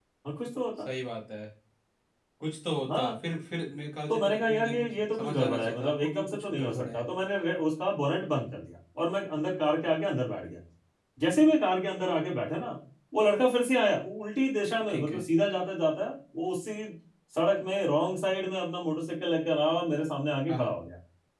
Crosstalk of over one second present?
Yes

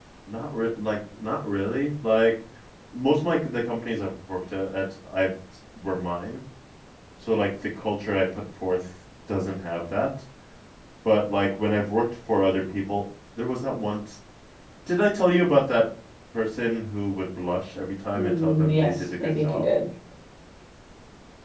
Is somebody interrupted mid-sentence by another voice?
Yes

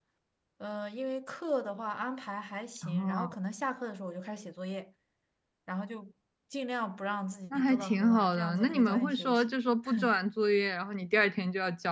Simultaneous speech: Yes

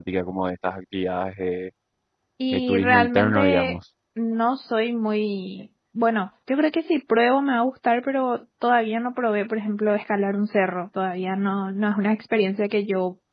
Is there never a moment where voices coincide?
No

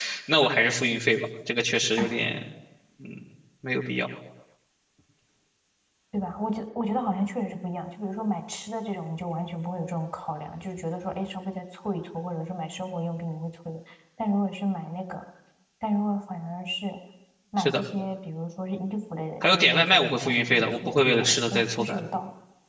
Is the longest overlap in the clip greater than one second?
Yes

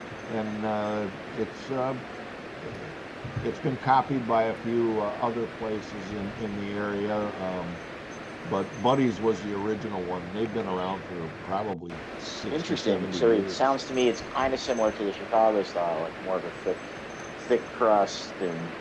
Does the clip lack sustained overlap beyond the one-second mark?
No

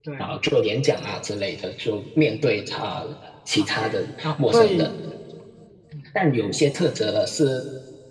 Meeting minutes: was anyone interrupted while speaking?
Yes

